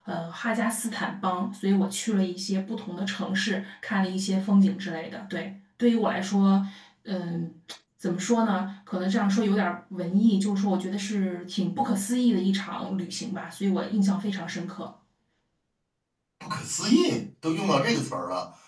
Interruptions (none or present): none